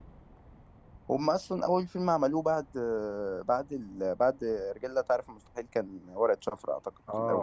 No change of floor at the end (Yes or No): No